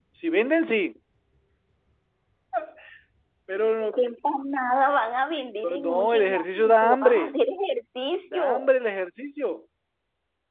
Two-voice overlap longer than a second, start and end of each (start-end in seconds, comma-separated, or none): 5.8-7.3